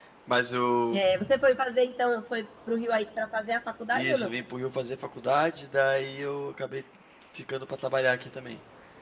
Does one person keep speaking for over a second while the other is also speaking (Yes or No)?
No